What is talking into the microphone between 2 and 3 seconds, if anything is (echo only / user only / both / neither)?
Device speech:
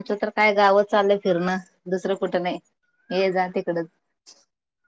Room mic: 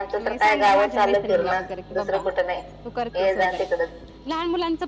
both